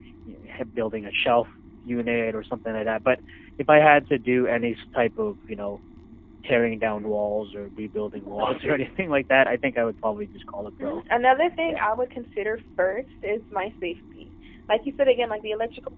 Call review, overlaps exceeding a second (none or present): none